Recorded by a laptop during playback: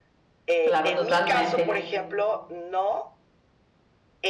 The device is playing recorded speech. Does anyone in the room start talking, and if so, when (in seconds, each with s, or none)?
0.6 s